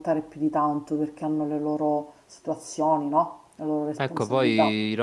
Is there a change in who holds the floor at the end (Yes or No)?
Yes